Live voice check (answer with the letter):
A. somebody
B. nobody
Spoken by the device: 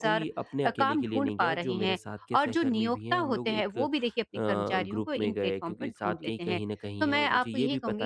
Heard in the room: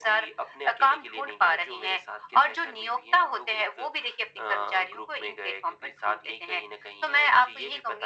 B